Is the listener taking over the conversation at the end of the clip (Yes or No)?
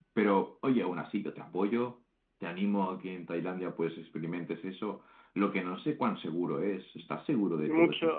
Yes